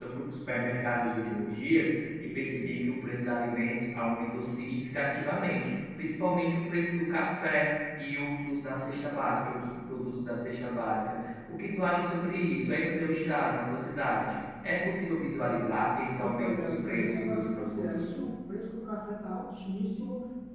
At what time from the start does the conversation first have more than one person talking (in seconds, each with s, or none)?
16.2 s